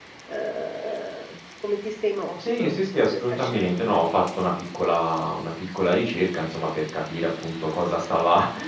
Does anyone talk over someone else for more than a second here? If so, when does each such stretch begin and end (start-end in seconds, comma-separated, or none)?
2.4-4.0